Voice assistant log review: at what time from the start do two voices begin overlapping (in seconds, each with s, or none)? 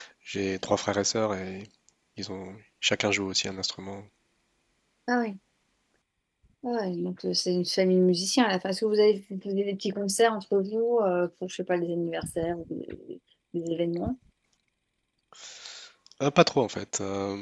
none